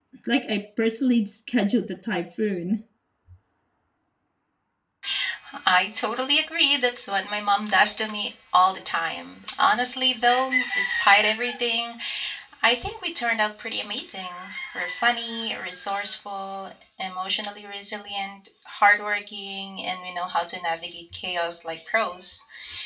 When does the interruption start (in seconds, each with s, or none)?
none